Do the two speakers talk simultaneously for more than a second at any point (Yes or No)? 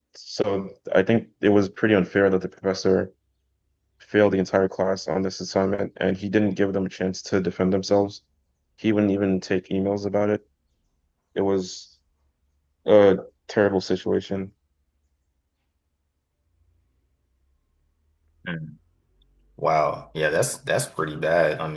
No